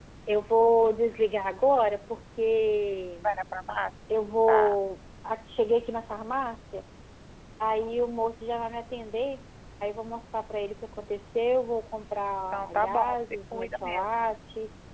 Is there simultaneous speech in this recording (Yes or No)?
Yes